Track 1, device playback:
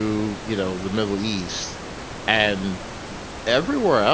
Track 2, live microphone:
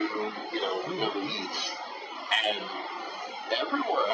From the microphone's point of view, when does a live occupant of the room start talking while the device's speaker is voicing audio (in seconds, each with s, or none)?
0.8 s